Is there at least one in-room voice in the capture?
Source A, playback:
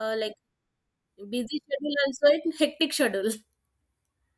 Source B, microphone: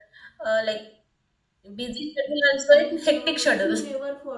Yes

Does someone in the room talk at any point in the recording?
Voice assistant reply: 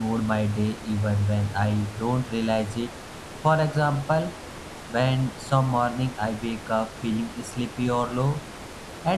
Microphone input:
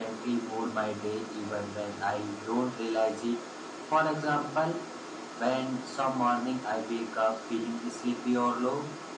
No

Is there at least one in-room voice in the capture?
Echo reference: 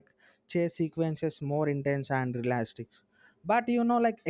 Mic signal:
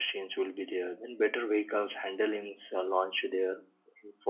Yes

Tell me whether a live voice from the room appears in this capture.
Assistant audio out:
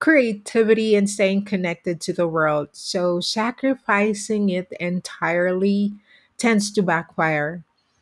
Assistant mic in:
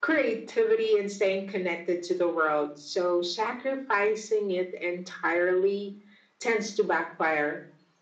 No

